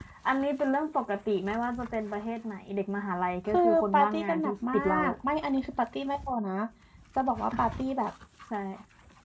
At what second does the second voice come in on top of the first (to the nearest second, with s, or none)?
4 s